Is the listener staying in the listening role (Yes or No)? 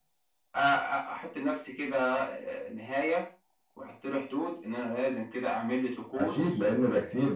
No